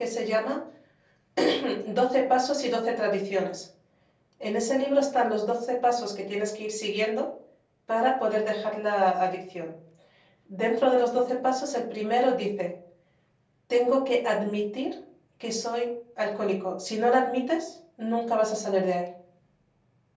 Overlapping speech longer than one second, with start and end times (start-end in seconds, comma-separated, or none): none